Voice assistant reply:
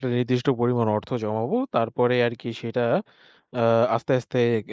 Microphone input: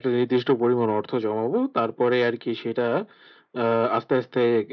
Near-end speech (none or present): none